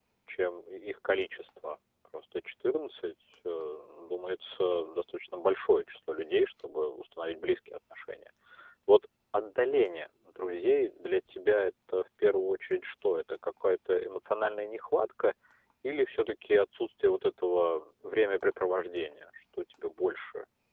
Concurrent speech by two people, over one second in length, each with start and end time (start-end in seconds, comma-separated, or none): none